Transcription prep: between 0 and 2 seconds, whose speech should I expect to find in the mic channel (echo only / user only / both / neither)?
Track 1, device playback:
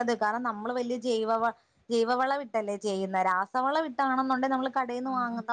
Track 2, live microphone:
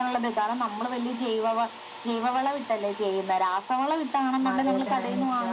echo only